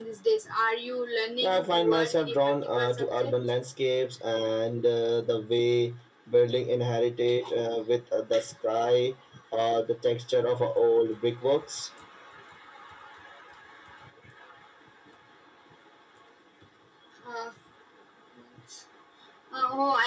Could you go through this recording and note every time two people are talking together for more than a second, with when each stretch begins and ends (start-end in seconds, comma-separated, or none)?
1.4-3.4